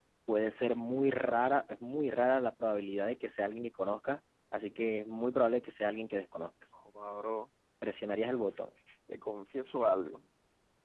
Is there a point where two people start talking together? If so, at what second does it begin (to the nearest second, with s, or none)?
none